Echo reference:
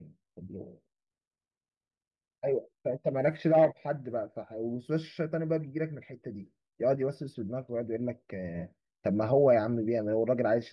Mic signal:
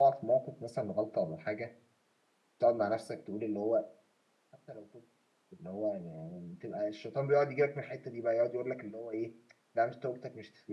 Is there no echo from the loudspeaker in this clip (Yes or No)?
Yes